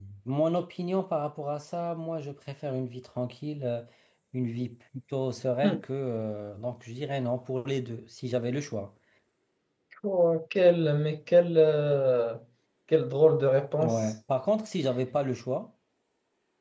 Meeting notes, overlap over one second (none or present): none